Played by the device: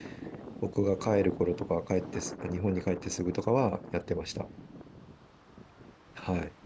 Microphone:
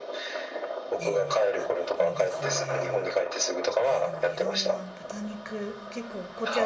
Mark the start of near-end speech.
1 s

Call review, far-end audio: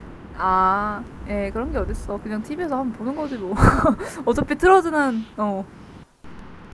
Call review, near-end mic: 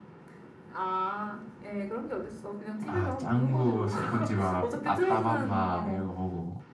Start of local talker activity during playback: 3 s

